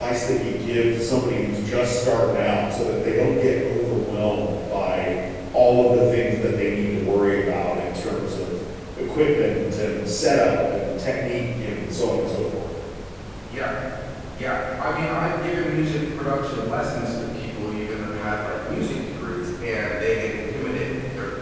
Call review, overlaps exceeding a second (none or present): none